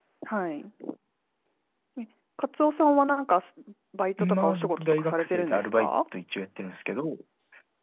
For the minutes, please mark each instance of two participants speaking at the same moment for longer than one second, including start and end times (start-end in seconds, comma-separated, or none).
4.2-6.0